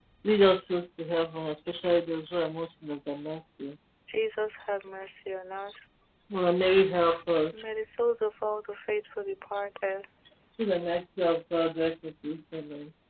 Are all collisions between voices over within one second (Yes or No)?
Yes